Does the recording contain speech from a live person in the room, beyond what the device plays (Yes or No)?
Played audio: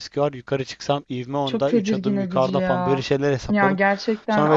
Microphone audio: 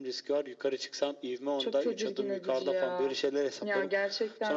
No